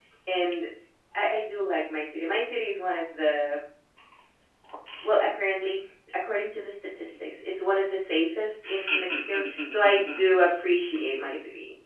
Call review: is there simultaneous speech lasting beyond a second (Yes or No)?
Yes